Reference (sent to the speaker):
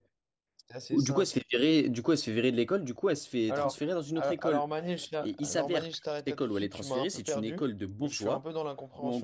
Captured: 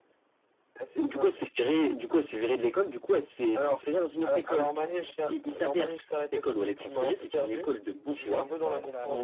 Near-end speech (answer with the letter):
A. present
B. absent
A